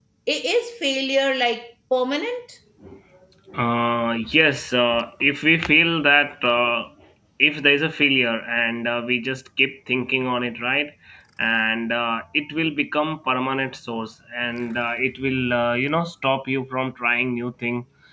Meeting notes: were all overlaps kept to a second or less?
Yes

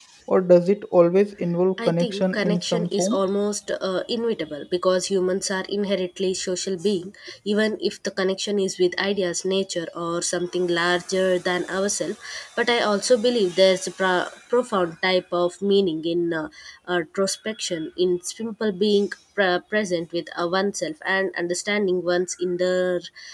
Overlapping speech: Yes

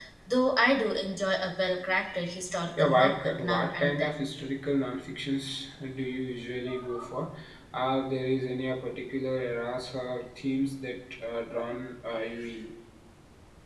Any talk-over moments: Yes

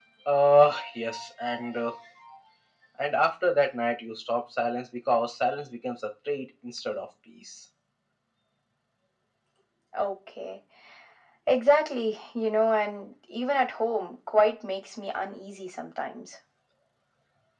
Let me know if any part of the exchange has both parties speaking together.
No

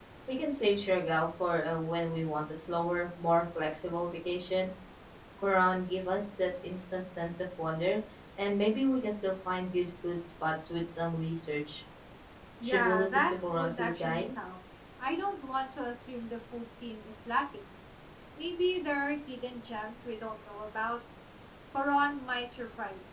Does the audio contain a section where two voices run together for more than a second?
Yes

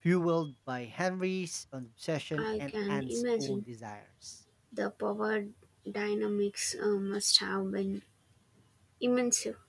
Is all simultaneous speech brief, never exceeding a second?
No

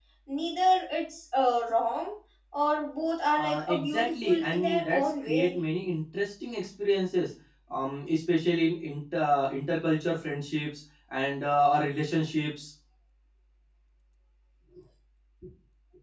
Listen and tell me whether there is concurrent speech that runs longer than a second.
Yes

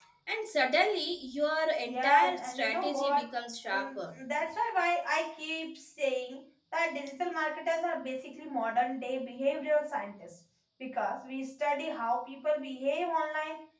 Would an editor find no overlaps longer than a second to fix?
No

